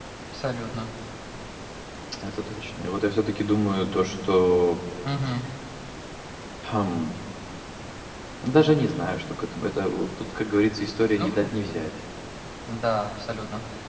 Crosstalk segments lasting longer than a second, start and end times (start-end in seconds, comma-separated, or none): none